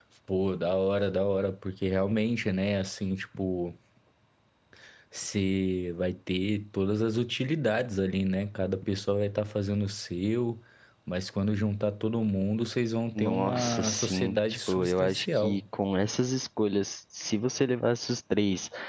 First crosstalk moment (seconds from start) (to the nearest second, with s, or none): 13 s